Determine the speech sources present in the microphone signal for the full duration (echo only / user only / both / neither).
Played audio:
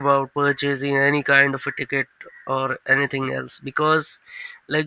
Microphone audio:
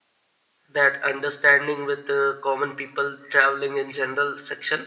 user only